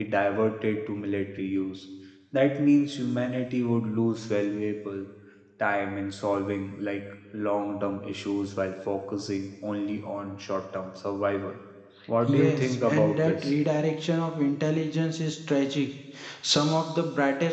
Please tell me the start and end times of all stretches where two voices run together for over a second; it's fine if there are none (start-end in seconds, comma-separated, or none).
12.3-13.5